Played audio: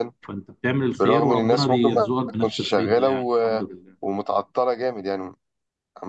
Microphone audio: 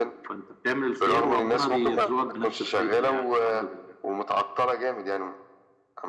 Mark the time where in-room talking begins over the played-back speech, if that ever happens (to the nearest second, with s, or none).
none